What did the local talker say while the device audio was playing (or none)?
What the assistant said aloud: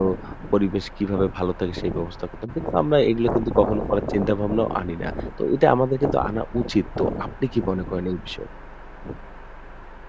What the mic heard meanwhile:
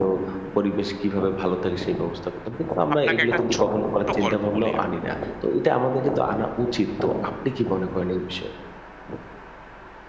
আপনাকে একটা ছোট্ট গল্প বলি আমি।